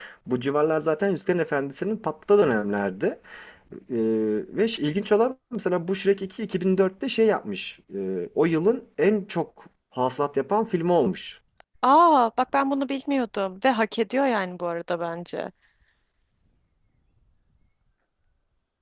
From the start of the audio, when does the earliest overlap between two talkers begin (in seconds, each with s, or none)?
none